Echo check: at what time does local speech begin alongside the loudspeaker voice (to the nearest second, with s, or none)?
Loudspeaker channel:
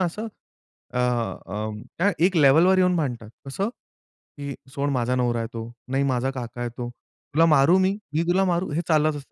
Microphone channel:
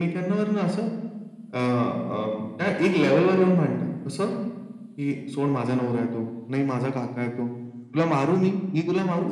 none